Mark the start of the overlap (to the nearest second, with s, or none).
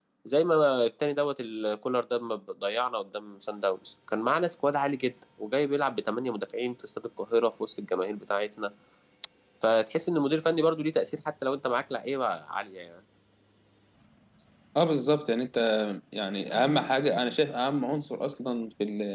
none